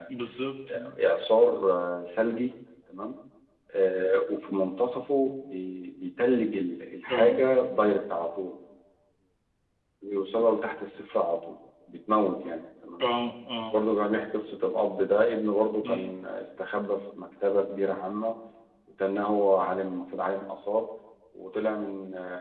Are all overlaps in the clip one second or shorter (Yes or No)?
Yes